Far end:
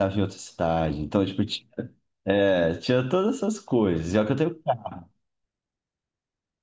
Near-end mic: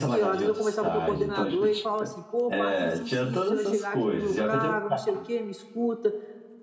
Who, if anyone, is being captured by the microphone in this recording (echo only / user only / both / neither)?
both